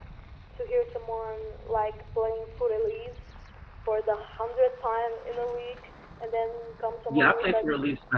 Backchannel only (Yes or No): No